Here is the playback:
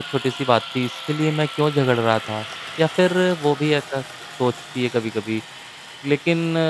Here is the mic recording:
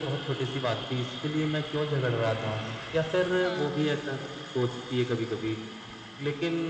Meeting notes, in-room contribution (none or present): present